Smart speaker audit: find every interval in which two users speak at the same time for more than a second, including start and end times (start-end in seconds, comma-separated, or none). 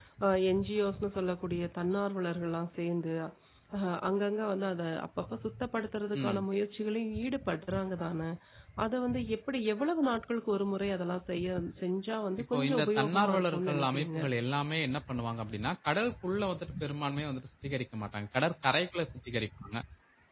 12.5-14.2